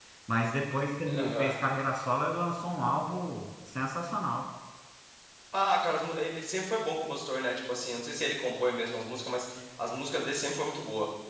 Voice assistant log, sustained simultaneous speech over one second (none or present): none